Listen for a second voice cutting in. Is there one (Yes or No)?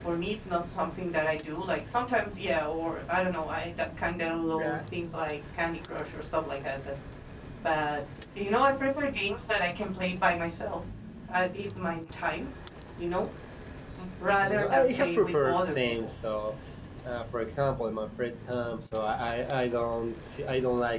Yes